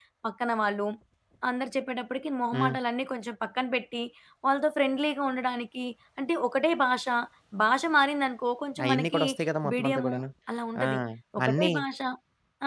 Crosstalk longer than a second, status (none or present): none